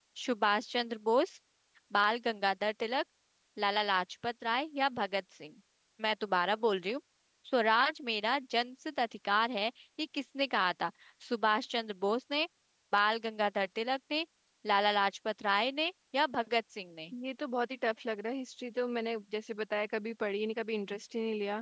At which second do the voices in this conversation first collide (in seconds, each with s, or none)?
none